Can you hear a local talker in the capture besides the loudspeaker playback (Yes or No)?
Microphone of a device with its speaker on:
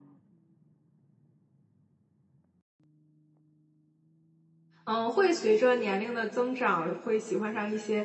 Yes